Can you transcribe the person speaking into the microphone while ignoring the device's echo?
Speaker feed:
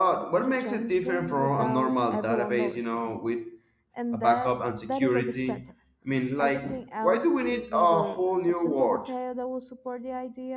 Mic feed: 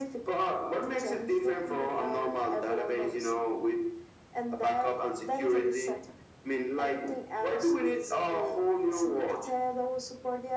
none

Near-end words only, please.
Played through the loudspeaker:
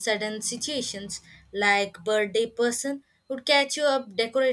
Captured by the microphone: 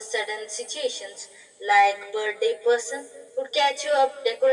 none

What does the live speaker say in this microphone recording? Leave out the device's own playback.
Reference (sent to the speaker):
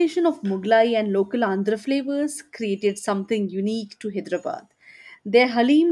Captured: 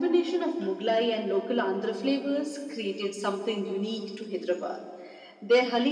none

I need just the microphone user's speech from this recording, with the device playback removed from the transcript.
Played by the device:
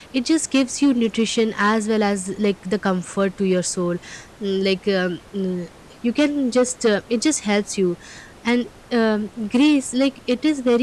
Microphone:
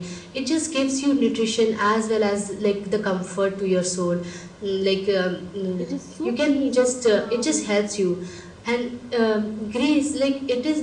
It is so peace and calm and

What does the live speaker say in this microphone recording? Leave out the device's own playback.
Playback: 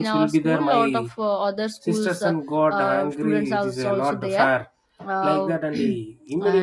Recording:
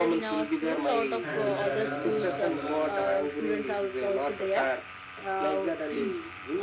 and the dance got collapsed.

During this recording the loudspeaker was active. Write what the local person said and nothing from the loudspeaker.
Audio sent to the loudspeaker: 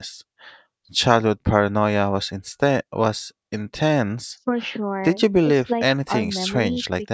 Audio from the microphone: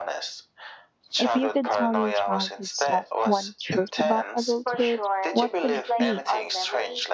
If you could tell your childhood self one truth about adulthood, what would it be?

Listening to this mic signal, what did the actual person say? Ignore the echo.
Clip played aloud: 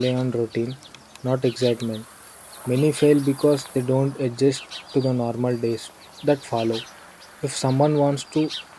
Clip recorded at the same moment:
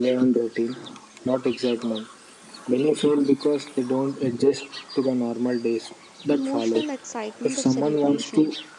emotional excitement of celebration.

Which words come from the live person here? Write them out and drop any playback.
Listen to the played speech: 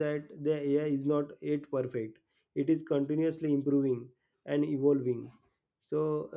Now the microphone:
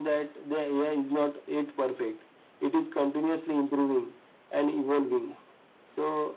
none

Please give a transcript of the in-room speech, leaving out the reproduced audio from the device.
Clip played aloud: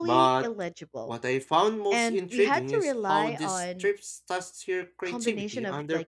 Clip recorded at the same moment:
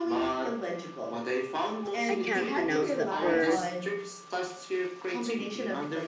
I can't pronounce that word

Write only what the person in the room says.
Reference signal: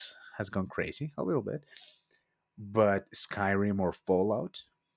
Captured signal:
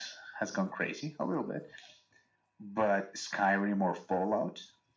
none

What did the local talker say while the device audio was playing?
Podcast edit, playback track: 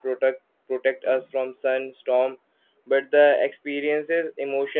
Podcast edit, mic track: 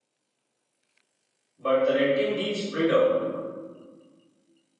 but the renting gives freedom.

